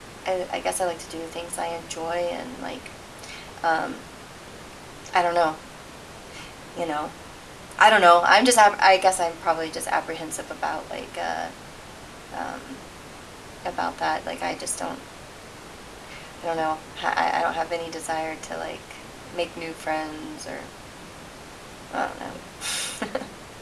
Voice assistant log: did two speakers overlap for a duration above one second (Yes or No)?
No